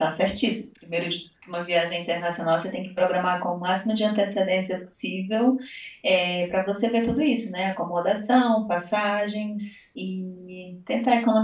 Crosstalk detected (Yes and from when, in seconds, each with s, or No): No